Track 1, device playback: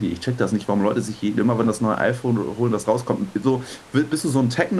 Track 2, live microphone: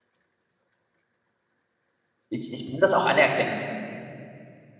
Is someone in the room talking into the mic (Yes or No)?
Yes